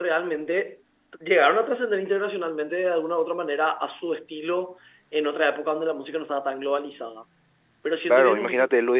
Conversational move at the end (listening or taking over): taking over